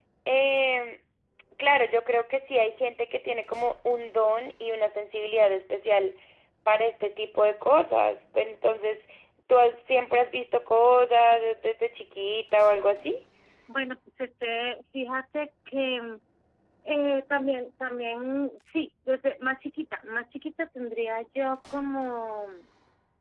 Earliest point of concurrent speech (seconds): none

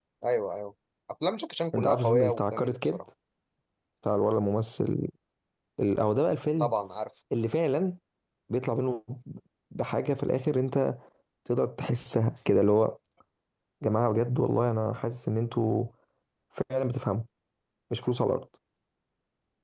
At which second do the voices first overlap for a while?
2 s

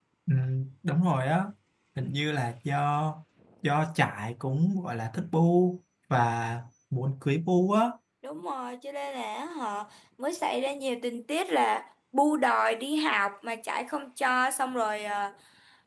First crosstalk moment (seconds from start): none

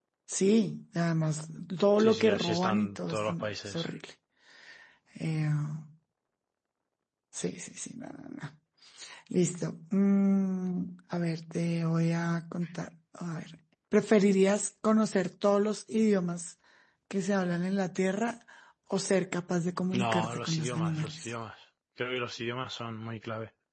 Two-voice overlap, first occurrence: 2 s

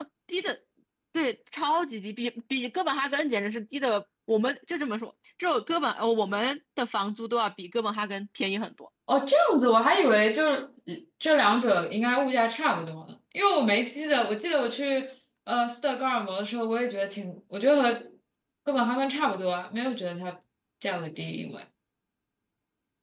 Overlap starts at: none

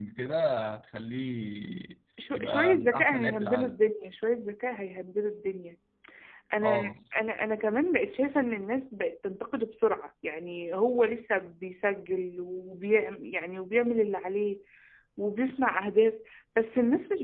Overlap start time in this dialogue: 2 s

